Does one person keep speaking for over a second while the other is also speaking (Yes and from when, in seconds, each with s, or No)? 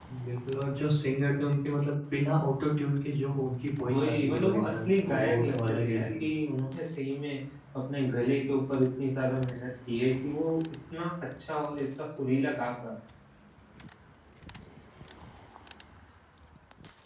Yes, from 3.9 s